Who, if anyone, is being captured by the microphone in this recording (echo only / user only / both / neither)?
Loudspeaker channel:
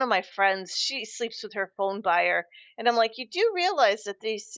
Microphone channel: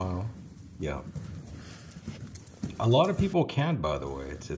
user only